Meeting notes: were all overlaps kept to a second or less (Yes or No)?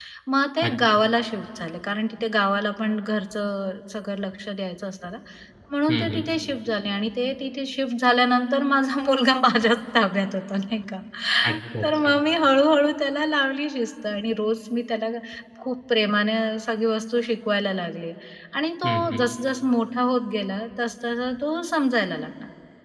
Yes